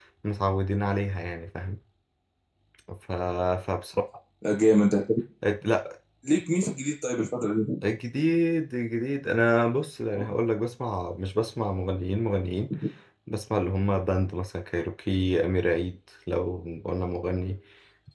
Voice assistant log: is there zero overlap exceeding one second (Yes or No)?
Yes